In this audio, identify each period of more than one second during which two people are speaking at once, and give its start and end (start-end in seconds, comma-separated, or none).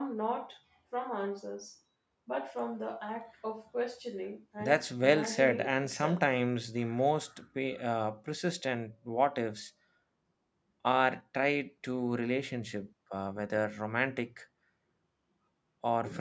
4.6-6.2